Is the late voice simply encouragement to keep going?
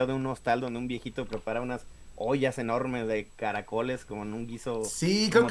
No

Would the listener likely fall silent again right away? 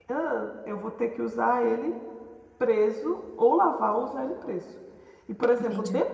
Yes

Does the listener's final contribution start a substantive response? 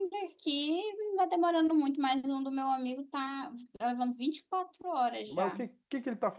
Yes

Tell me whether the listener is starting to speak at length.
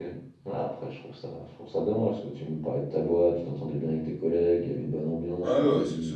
Yes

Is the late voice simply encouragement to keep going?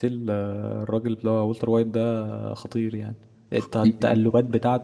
Yes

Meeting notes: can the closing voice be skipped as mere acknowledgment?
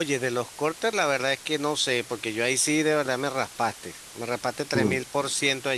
Yes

